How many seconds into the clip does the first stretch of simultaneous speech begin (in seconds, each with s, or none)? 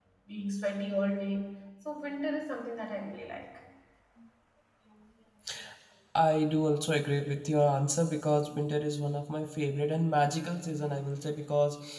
none